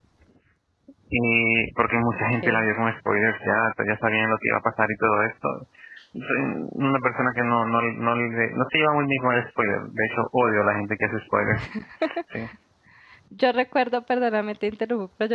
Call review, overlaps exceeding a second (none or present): none